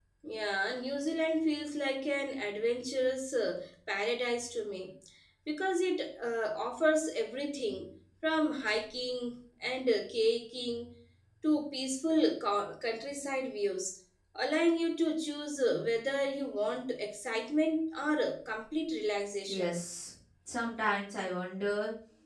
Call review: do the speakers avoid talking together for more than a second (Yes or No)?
Yes